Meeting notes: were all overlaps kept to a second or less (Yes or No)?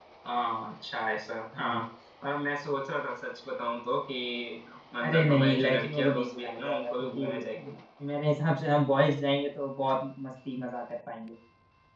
No